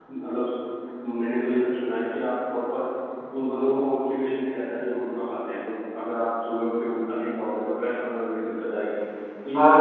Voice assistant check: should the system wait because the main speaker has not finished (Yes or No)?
No